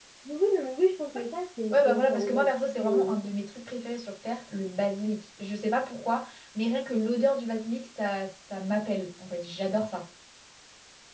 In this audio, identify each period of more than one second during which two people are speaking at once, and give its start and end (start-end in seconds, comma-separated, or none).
1.7-3.2